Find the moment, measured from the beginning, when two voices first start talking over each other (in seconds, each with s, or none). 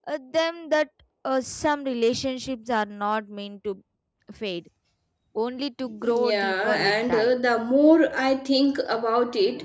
6.0 s